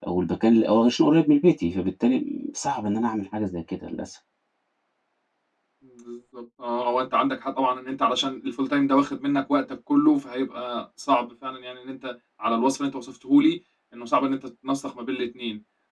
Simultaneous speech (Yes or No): No